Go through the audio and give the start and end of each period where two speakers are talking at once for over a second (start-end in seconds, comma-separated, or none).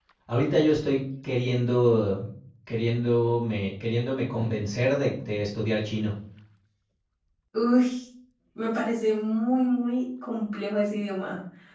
none